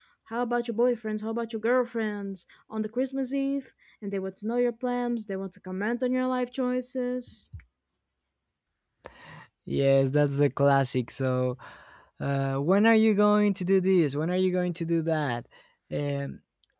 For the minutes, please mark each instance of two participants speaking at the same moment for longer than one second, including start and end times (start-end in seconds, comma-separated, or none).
none